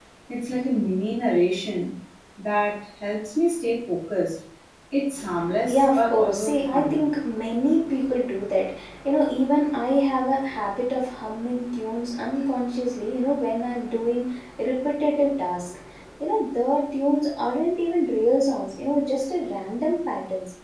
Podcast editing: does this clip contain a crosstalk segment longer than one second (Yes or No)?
Yes